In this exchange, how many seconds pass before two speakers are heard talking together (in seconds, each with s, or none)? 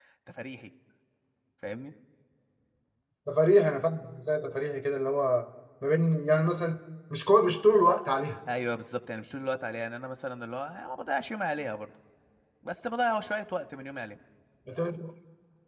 none